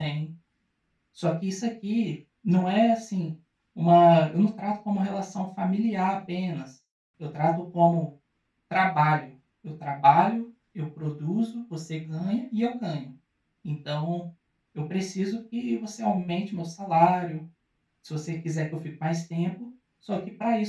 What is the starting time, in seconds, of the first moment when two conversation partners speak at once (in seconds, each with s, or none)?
none